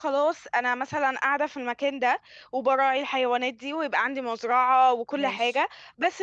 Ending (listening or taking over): listening